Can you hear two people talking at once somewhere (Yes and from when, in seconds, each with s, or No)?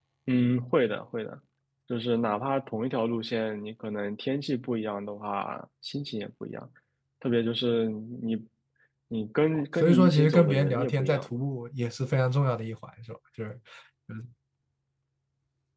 Yes, from 9.8 s